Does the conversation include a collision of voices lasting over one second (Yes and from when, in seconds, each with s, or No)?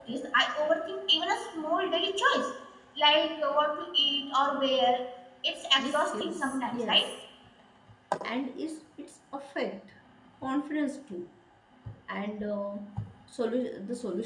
Yes, from 5.8 s